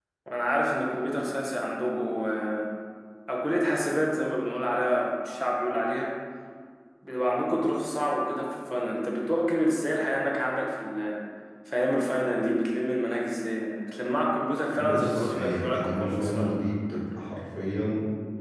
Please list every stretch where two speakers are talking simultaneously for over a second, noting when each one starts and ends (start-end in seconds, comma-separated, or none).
14.7-16.6